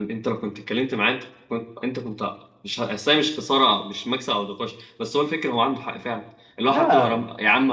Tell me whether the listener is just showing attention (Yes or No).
Yes